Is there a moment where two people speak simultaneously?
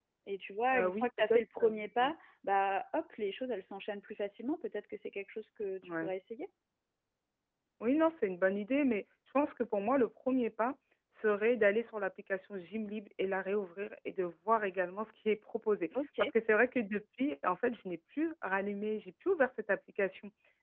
Yes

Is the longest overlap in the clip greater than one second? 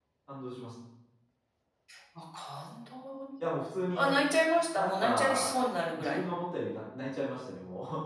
Yes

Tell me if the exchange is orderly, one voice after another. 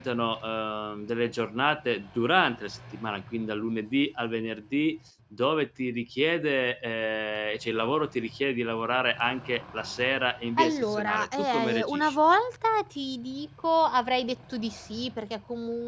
No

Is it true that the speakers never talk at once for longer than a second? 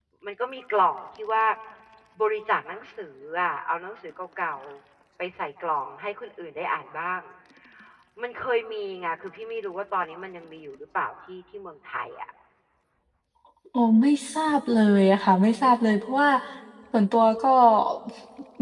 Yes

